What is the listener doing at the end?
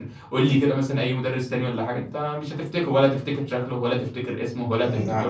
taking over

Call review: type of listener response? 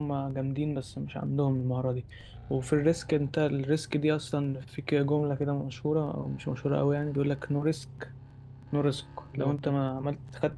listening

